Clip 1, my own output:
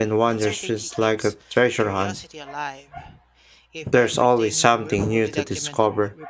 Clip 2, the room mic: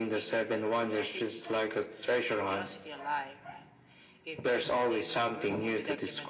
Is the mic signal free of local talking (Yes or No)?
Yes